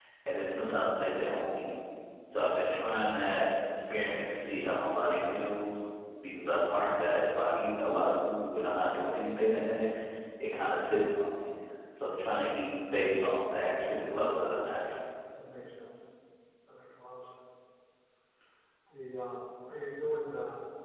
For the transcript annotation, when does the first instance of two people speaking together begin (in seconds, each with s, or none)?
none